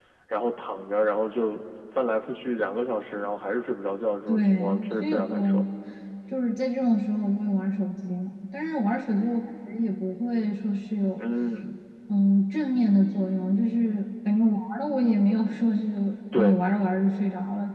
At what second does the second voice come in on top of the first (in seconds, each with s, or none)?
4.3 s